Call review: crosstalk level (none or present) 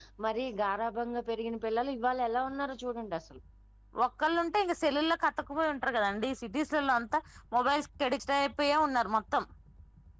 none